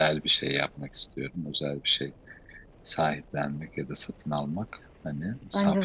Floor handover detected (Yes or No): Yes